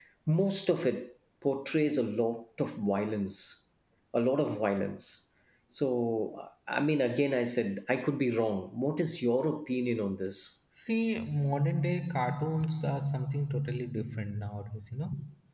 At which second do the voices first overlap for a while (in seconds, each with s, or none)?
none